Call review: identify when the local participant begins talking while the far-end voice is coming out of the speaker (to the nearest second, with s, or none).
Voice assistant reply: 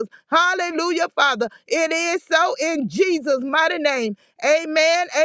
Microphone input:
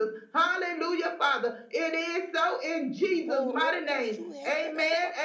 3 s